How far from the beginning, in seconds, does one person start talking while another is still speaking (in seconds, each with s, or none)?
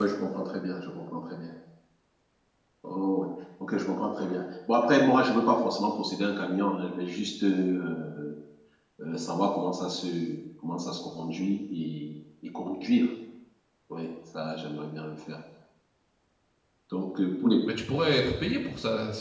none